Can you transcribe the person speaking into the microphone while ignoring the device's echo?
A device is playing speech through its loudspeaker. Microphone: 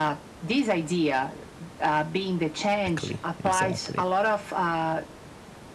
Exactly, exactly.

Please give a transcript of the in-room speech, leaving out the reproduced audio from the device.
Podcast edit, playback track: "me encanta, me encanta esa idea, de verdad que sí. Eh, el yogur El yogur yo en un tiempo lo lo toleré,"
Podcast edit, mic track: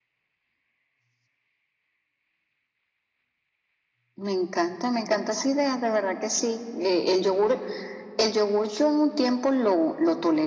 none

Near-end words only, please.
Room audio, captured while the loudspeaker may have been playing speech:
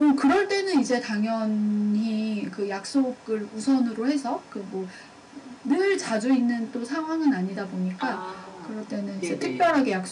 아 네네.

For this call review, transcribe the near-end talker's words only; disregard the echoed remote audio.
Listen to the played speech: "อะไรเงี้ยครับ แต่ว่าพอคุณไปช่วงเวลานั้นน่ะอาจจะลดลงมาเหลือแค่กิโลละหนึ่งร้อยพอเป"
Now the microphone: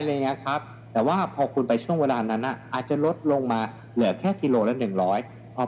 none

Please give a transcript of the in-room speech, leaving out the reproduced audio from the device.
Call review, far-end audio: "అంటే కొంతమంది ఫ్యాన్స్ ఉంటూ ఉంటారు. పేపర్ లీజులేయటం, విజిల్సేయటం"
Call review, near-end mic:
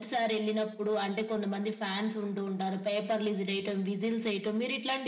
none

